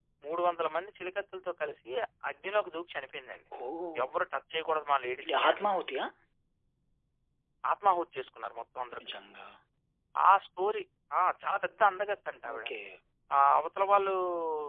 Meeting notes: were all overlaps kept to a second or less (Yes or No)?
Yes